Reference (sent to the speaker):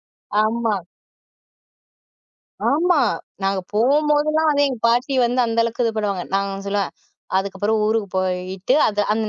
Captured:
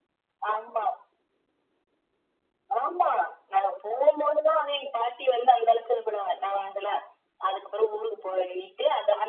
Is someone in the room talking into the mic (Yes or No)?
No